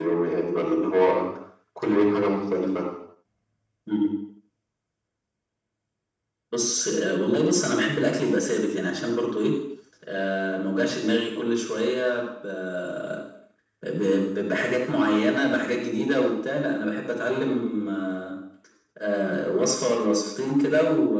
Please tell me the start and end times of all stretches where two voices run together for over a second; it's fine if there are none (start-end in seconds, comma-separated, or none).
none